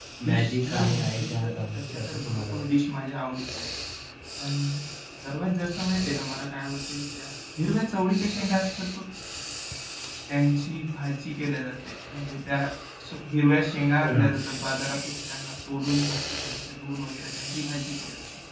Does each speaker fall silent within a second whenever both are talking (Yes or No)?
No